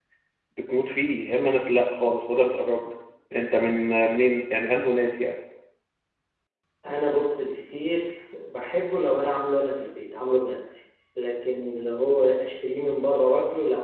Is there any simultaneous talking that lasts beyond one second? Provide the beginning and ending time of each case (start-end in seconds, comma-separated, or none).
none